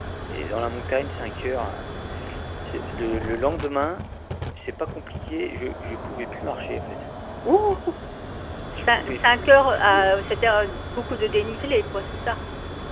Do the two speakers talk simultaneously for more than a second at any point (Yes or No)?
Yes